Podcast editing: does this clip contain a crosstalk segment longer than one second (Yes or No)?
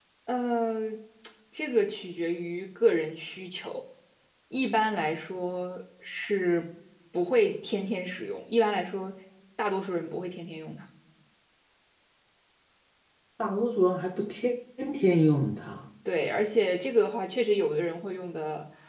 No